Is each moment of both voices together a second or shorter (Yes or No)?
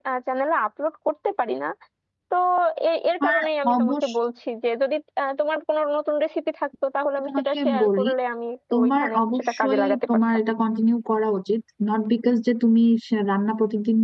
No